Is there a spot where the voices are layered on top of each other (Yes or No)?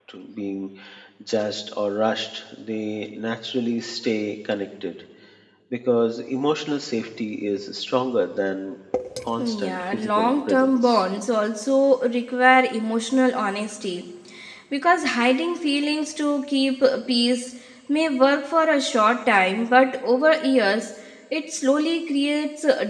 Yes